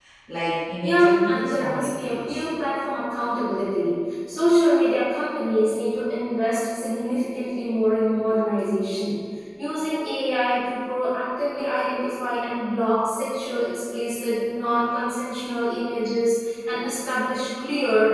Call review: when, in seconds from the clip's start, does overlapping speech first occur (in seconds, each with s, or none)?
0.8 s